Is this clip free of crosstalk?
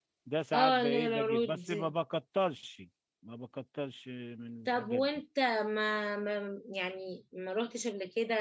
No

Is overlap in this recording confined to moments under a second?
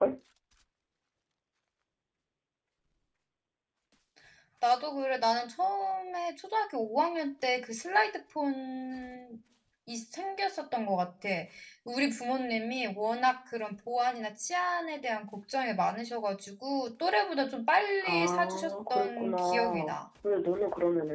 No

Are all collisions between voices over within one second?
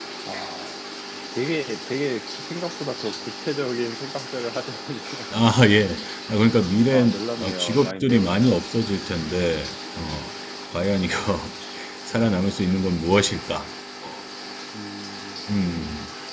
No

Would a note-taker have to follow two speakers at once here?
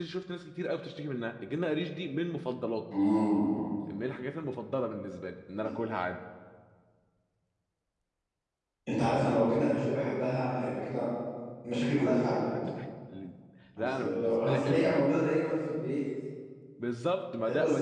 Yes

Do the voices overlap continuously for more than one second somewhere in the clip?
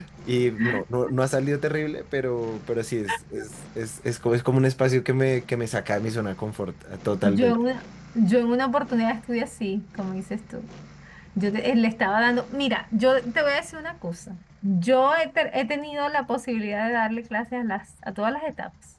No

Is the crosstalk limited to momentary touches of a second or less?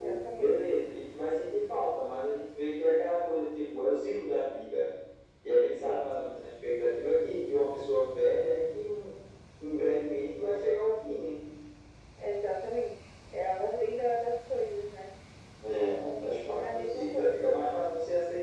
No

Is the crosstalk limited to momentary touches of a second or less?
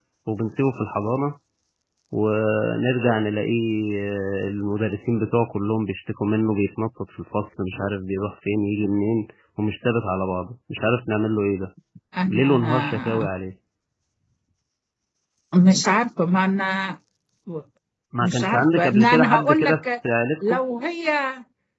No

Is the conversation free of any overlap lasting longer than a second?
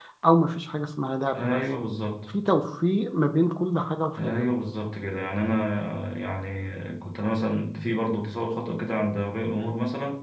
Yes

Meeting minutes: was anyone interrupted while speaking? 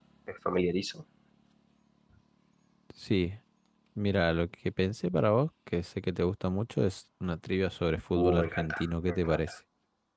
Yes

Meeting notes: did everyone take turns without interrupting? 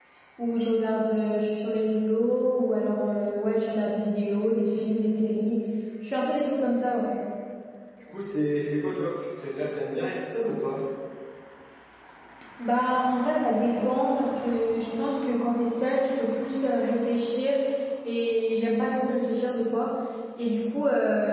Yes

